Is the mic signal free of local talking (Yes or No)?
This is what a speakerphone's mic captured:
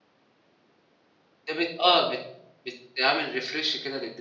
No